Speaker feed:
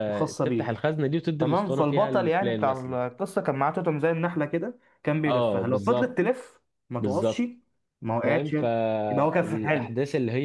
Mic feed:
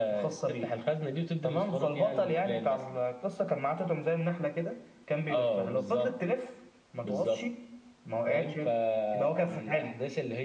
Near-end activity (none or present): none